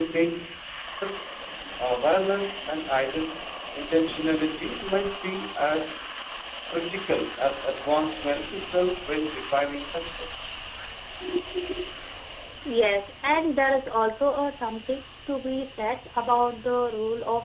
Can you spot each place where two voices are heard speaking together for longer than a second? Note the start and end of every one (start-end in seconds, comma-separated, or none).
none